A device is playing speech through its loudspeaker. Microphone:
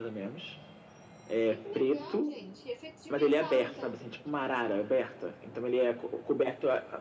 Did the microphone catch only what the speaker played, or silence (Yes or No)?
No